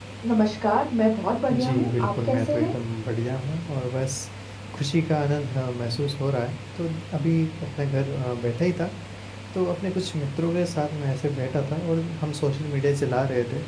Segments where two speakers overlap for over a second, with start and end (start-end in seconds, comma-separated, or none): 1.5-2.8